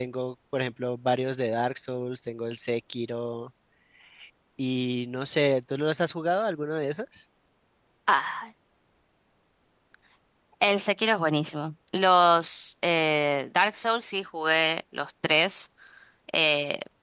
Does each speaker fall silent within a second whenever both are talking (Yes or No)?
Yes